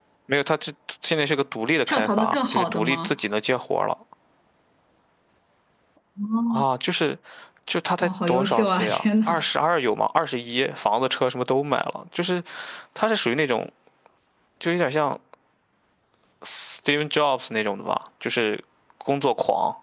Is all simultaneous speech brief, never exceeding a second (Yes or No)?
No